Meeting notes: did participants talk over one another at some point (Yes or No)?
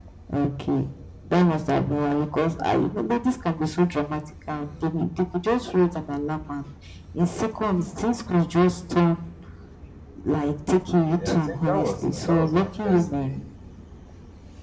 Yes